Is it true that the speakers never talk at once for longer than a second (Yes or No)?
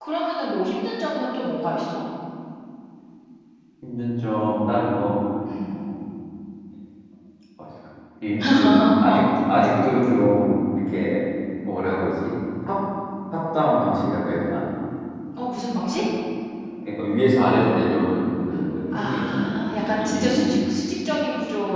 No